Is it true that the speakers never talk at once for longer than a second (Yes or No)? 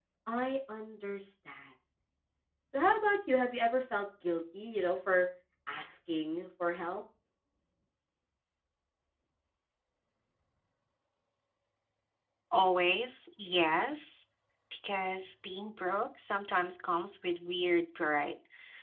Yes